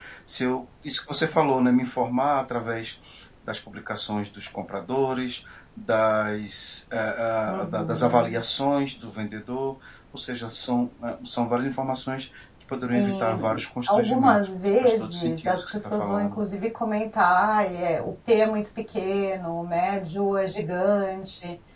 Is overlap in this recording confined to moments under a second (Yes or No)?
No